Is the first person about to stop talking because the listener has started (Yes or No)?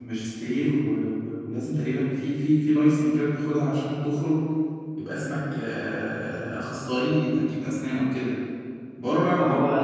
No